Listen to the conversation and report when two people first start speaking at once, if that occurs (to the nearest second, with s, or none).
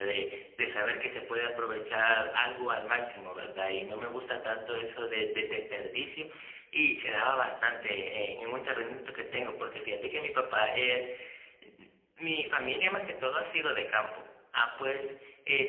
none